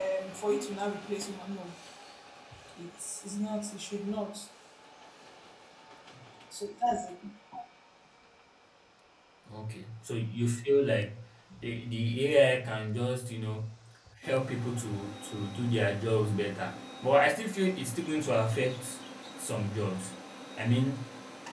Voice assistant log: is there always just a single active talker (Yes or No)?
Yes